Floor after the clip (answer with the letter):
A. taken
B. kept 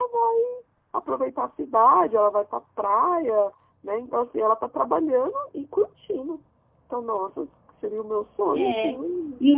A